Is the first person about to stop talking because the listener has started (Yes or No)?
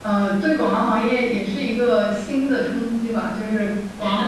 No